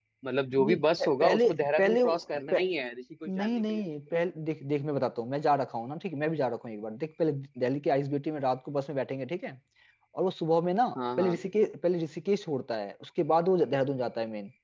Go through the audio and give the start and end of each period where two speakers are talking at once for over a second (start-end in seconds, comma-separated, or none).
0.6-2.0